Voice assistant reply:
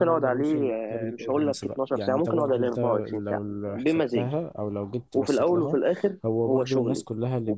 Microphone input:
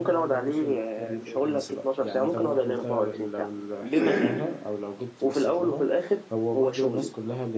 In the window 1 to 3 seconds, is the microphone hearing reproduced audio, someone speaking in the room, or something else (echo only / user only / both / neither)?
echo only